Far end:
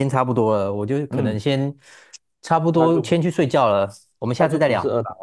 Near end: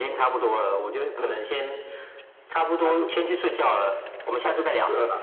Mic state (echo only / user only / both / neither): echo only